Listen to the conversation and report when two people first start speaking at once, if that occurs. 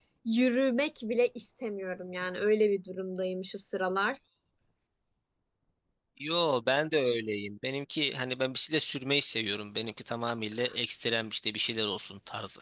none

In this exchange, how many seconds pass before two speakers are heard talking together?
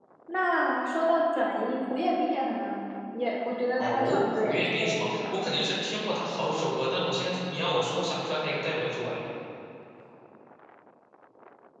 3.8 s

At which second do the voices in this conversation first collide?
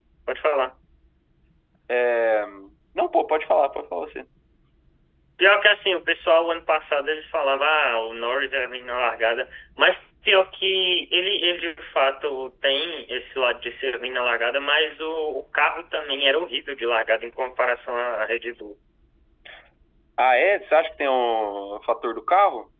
none

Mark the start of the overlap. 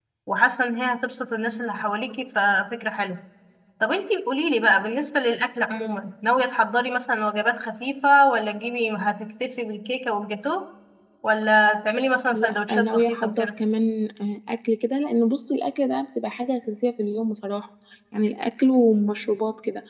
12.3 s

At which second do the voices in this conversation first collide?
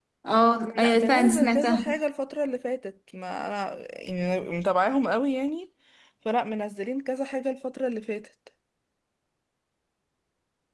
0.6 s

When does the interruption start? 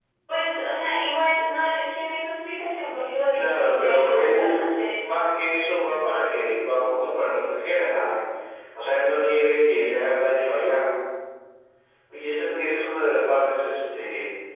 3.3 s

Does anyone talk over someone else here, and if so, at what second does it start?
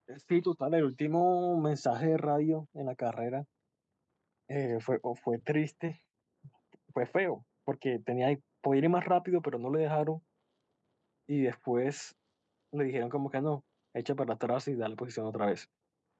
none

